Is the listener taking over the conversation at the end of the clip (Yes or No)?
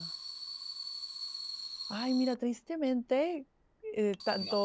No